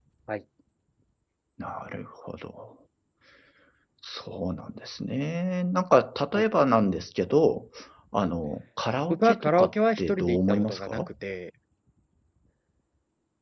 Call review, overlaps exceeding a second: present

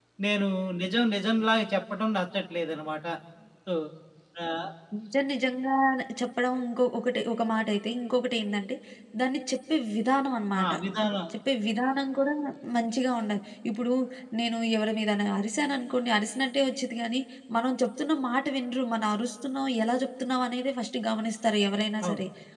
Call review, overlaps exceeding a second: none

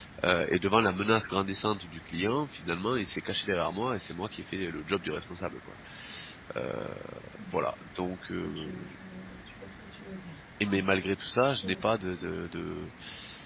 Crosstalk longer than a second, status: none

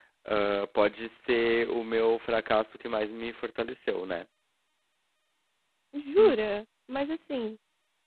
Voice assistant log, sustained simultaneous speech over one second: none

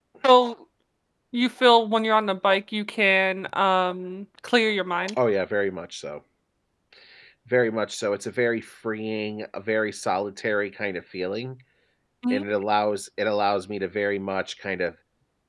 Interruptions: none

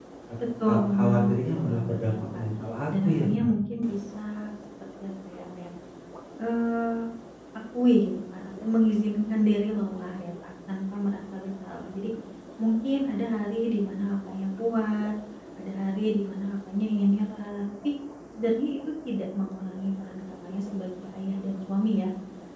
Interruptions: present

